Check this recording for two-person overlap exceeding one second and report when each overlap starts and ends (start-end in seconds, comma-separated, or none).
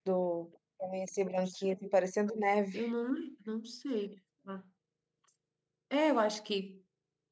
none